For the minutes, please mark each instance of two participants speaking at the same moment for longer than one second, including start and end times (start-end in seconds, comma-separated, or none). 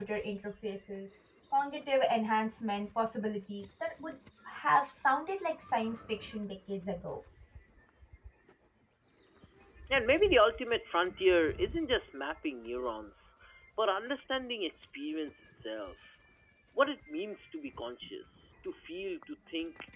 none